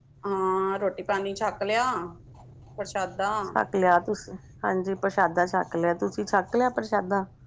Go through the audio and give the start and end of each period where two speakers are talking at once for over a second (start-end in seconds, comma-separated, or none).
none